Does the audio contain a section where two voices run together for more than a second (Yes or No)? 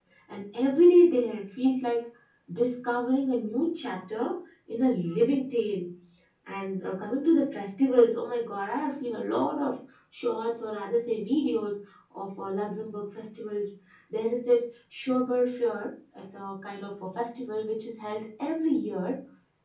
No